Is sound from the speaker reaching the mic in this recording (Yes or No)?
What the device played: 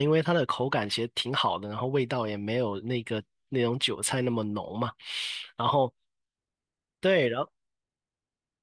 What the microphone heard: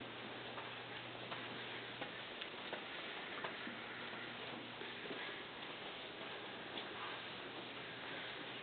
No